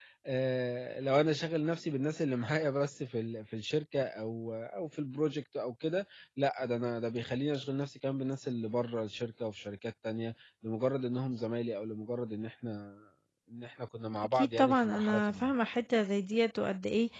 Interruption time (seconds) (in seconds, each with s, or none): 14.2 s